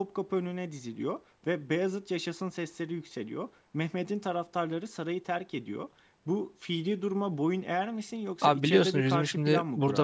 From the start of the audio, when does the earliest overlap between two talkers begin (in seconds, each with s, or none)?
8.4 s